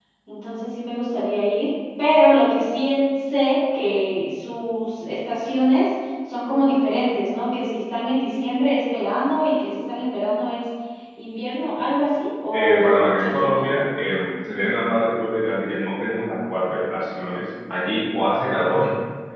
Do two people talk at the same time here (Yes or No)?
Yes